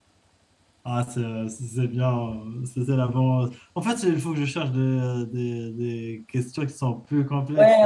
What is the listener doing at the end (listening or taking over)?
taking over